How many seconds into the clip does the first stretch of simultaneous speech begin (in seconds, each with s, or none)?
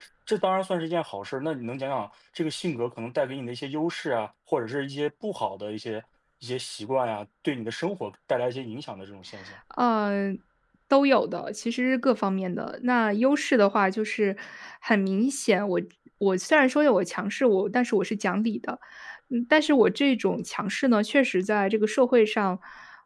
none